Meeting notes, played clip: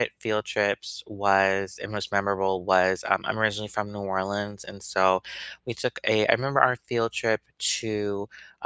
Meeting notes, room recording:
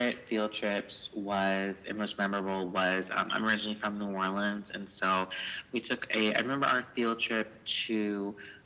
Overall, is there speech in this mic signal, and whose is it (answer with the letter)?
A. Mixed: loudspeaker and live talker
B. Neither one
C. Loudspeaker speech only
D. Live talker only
C